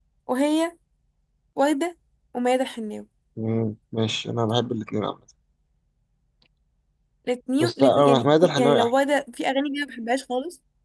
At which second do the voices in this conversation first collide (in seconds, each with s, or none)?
7.6 s